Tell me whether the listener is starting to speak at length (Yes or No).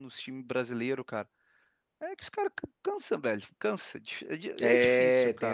Yes